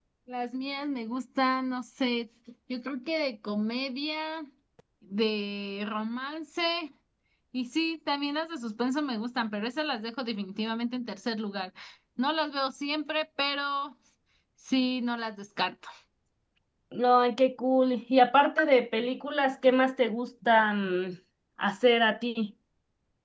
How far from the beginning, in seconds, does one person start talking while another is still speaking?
none

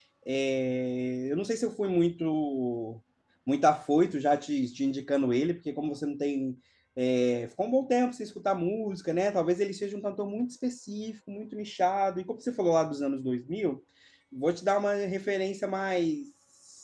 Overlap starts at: none

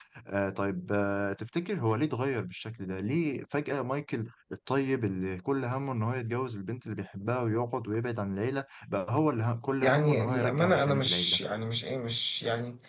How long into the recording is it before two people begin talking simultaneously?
9.8 s

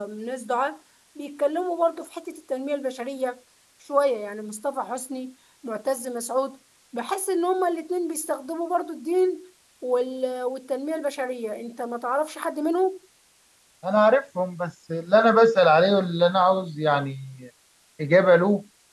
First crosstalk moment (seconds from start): none

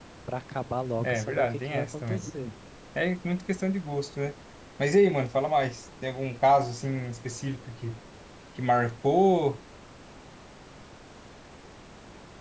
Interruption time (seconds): 1.0 s

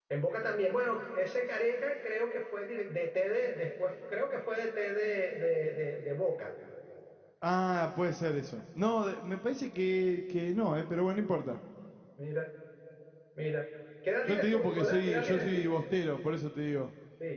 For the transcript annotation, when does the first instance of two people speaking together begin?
14.3 s

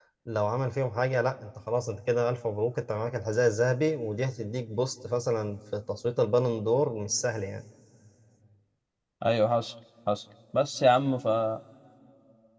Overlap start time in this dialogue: none

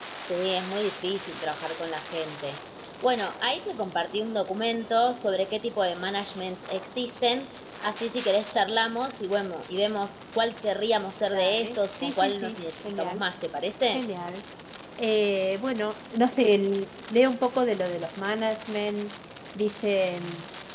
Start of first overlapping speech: 11.3 s

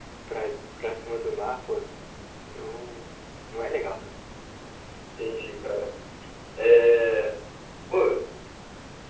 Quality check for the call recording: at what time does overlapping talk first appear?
none

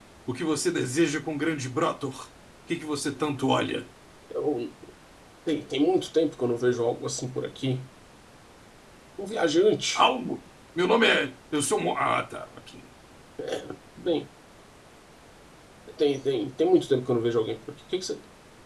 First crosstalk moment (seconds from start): none

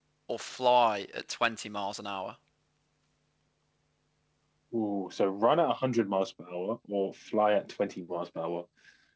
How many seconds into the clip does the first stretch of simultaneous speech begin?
none

